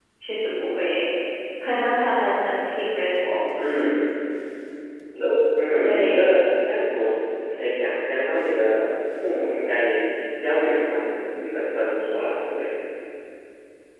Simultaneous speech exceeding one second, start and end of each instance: none

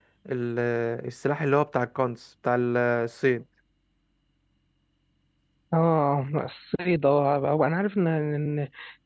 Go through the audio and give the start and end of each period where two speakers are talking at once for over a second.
none

